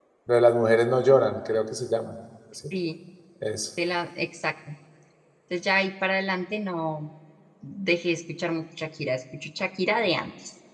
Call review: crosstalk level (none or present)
none